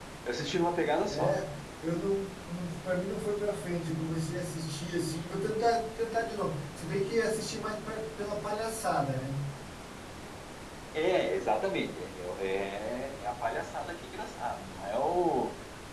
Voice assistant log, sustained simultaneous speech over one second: none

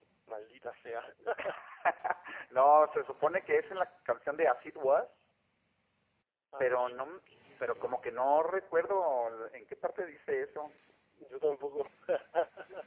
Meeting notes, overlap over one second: present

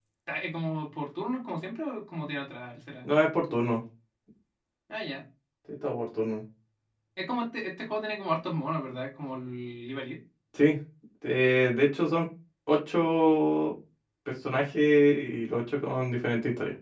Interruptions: none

